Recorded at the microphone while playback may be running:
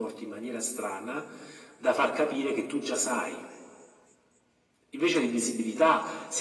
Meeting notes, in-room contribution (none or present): none